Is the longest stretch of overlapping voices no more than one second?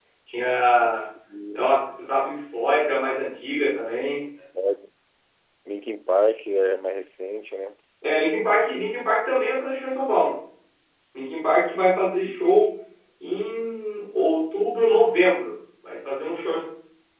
Yes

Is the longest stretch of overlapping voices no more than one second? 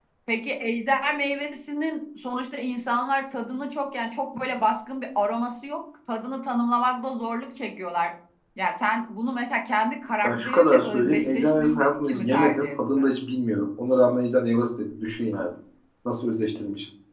No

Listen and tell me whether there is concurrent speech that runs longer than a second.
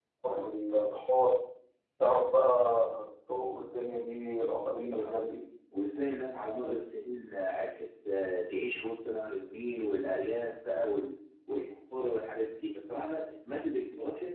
No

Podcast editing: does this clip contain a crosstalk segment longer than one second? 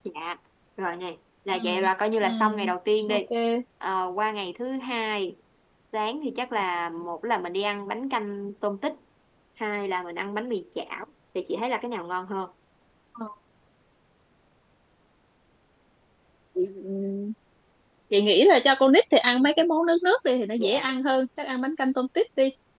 No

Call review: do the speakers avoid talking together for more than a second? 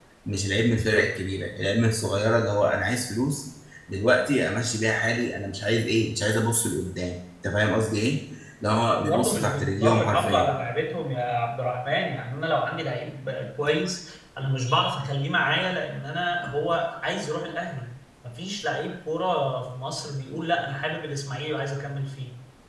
No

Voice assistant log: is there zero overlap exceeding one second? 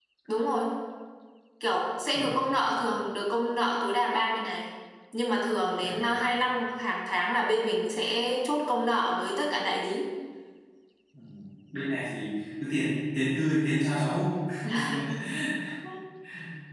Yes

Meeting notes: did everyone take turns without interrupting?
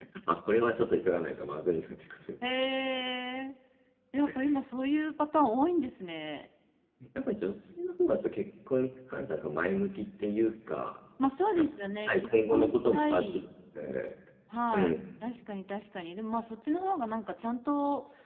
No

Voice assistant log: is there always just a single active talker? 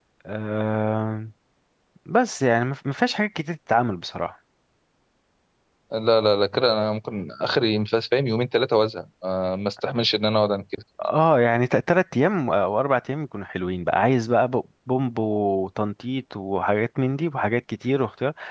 Yes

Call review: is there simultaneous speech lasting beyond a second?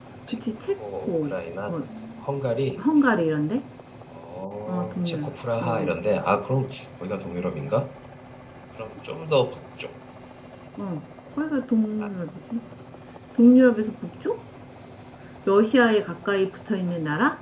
Yes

